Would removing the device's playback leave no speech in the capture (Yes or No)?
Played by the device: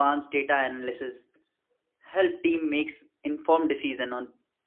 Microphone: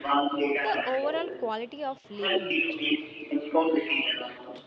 No